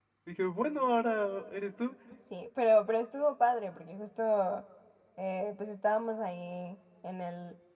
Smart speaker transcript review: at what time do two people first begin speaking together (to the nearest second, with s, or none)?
none